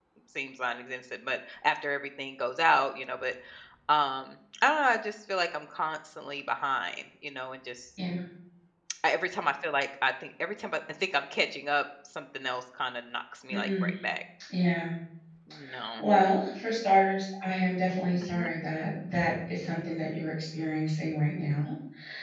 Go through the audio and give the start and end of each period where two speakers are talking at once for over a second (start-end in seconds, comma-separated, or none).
none